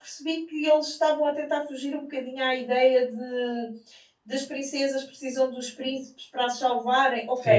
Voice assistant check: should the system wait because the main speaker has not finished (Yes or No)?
No